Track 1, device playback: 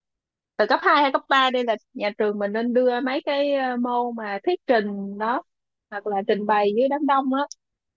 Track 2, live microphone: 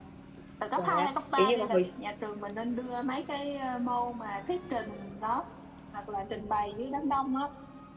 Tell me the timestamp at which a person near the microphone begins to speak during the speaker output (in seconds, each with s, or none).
0.7 s